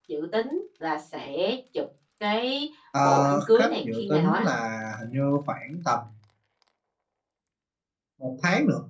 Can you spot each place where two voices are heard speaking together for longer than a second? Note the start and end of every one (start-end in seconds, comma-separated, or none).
3.0-4.5